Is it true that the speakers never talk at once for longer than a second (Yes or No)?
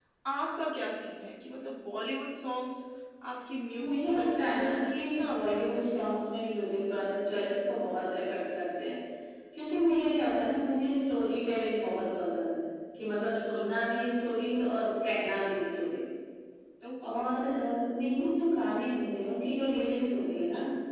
No